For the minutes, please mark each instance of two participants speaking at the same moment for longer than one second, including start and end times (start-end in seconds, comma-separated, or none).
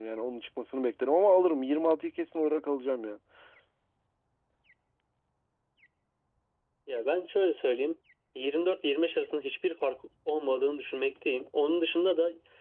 none